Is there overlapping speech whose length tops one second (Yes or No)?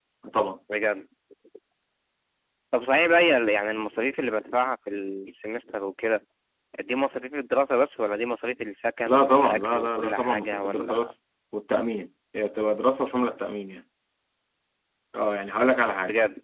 Yes